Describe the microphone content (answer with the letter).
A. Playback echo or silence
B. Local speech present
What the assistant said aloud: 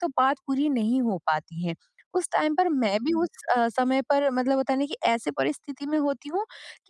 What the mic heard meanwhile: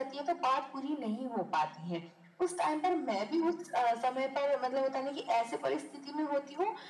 A